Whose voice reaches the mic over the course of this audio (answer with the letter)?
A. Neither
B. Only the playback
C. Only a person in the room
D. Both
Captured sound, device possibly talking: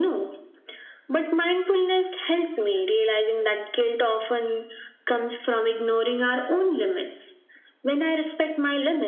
B